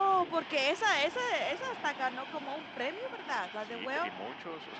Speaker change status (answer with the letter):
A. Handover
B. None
A